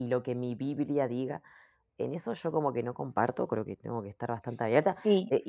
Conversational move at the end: listening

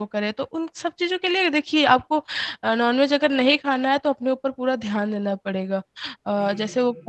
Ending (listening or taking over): listening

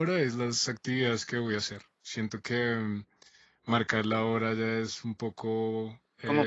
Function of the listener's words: taking over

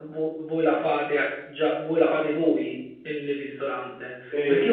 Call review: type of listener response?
listening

